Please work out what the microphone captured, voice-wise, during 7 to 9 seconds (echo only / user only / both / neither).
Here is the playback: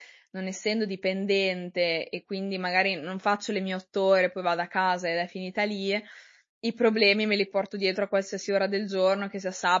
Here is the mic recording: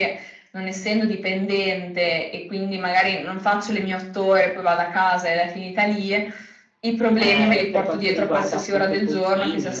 both